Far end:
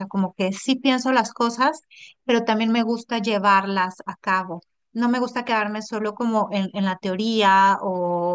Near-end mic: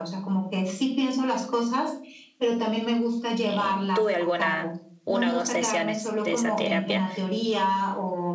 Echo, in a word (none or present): present